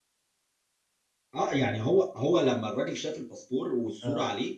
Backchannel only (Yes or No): Yes